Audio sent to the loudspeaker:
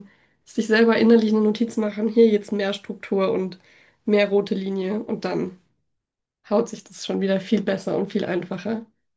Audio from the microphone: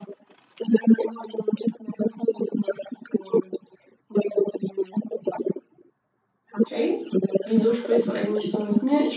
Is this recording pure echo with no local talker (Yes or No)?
No